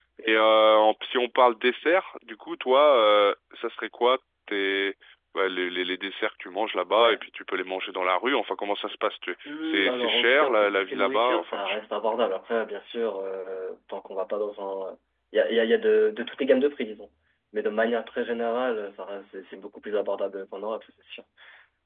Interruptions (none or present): present